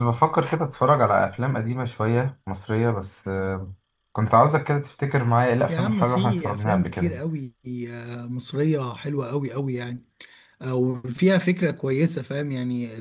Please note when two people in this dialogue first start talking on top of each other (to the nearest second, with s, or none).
6 s